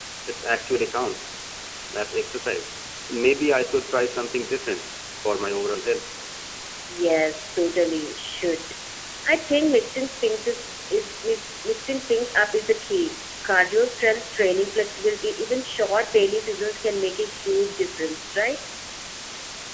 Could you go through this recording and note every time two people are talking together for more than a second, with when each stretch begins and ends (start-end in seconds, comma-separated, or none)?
none